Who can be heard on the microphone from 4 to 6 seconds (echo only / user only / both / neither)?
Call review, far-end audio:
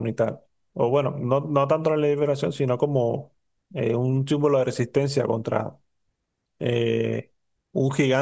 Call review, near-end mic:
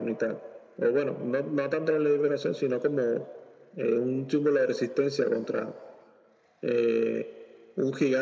echo only